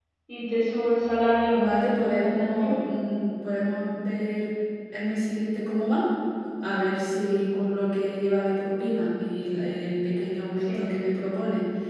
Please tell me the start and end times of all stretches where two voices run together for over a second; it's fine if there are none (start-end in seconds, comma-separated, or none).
1.5-2.8